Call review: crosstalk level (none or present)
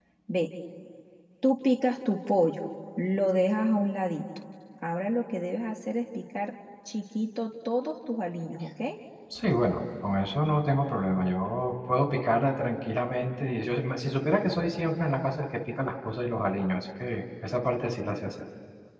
none